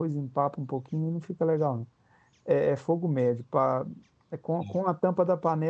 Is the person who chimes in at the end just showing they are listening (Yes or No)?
Yes